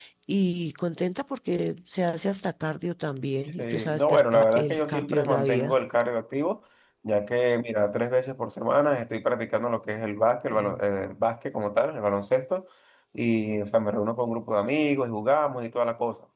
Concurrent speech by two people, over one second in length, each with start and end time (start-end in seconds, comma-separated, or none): 3.6-5.8